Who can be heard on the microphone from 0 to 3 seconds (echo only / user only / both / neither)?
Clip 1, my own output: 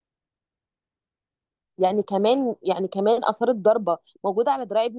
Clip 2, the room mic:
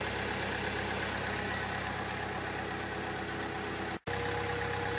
neither